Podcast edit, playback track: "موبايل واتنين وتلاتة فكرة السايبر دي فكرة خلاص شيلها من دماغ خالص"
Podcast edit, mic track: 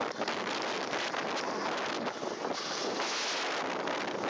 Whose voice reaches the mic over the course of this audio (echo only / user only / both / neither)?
neither